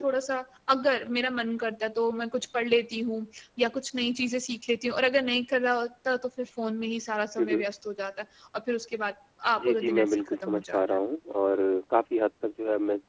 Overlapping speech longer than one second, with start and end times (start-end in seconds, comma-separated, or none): 9.6-11.0